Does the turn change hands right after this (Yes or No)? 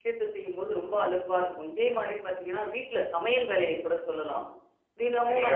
Yes